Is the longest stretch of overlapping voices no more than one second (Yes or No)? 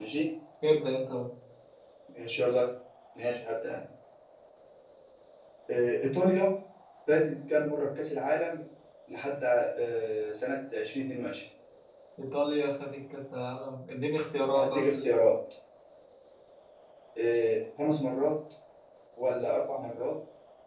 Yes